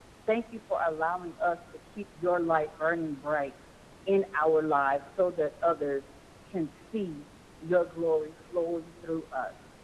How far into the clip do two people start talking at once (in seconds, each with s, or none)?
none